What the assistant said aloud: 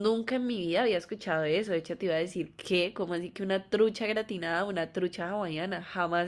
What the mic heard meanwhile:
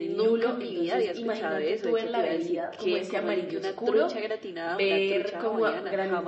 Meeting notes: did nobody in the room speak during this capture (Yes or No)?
No